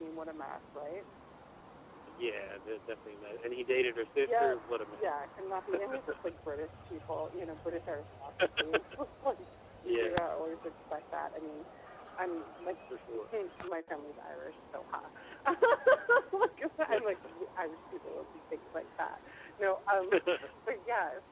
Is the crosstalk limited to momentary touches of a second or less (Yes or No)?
Yes